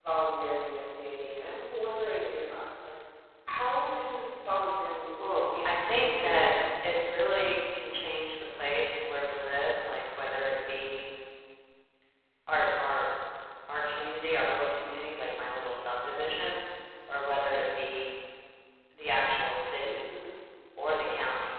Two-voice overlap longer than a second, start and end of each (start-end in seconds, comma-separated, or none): 5.2-6.5